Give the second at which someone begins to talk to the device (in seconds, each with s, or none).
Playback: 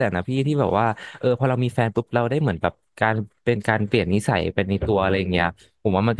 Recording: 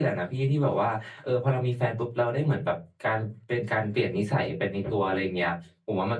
none